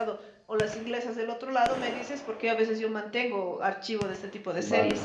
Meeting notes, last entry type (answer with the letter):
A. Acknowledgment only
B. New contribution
B